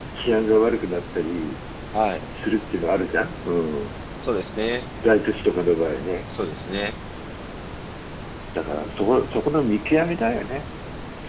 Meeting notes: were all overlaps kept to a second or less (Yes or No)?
Yes